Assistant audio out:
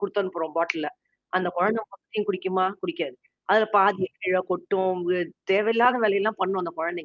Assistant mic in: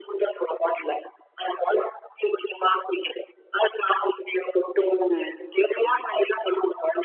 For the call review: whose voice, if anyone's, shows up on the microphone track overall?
both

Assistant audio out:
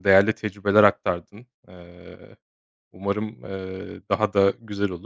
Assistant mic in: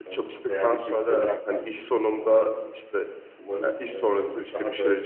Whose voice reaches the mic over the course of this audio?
both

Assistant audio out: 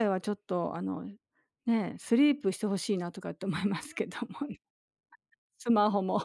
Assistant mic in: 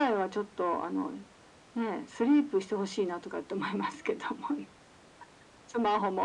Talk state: echo only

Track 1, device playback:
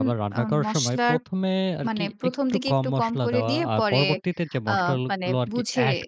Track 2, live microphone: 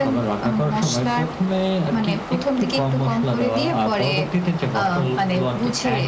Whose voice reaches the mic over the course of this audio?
echo only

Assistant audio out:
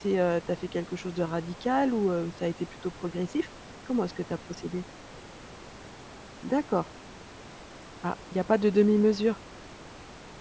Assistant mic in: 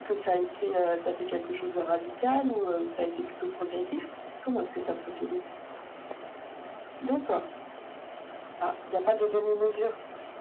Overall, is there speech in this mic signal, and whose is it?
echo only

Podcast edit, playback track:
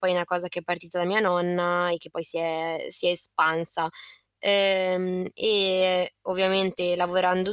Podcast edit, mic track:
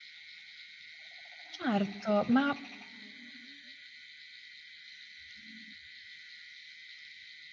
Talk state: user only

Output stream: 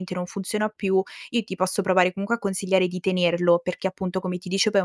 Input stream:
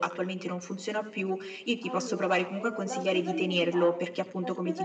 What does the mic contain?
both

